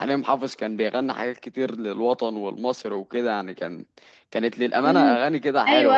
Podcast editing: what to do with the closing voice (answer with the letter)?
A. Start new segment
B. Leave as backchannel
A